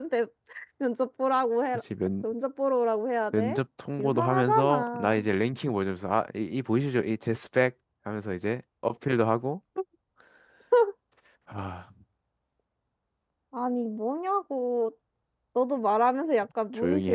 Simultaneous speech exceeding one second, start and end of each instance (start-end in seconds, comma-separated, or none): 4.0-5.2